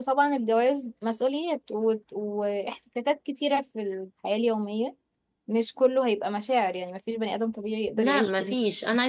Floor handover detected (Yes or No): Yes